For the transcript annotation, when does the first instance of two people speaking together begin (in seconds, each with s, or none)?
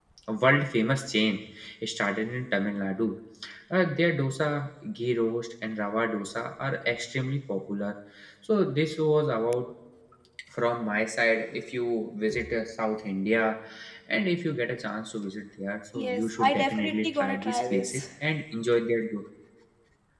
15.9 s